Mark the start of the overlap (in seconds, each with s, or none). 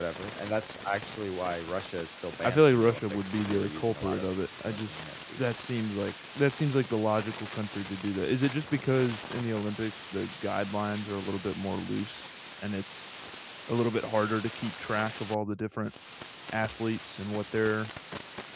2.4 s